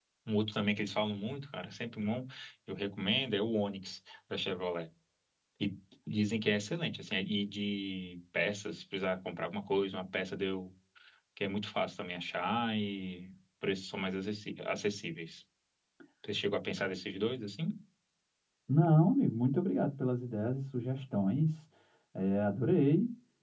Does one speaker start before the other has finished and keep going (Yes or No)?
No